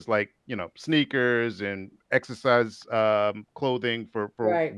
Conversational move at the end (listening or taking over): listening